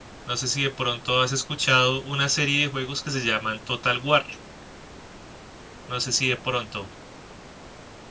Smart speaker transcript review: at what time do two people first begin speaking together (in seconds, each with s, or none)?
none